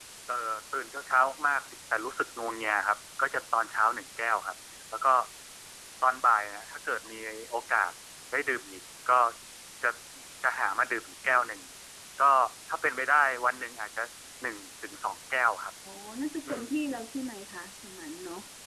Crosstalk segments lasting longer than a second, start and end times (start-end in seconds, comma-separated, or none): none